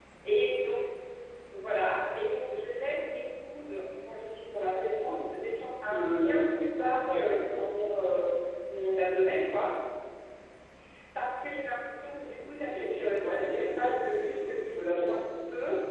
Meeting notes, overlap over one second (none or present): present